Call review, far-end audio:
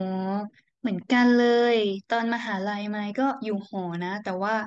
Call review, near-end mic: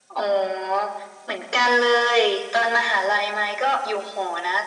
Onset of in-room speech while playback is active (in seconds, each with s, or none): none